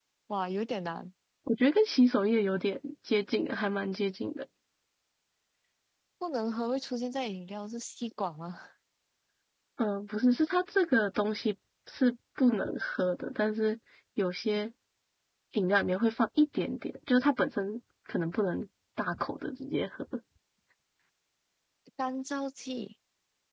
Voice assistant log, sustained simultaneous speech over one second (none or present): none